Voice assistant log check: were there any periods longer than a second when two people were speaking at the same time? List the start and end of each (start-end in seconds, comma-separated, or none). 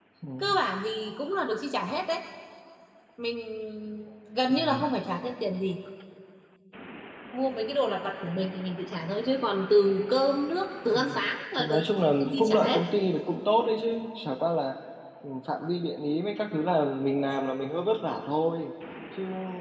11.6-12.8